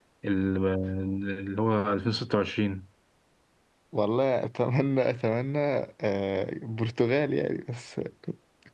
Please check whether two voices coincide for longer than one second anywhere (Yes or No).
No